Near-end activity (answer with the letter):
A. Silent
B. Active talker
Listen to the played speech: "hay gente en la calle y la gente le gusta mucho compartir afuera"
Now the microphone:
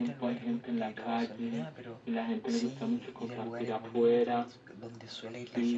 B